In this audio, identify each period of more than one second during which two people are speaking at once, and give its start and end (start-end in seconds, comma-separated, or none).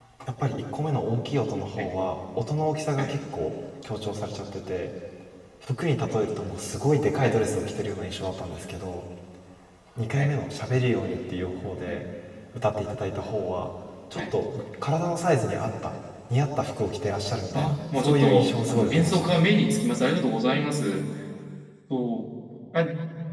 17.5-19.3